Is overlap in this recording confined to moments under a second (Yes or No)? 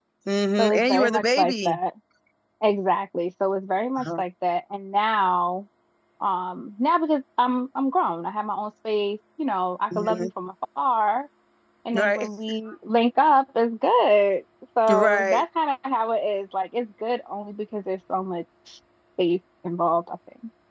No